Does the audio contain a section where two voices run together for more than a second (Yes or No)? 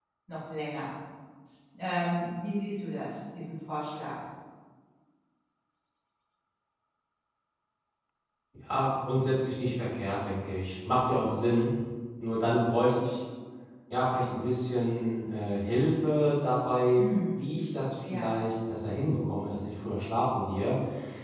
No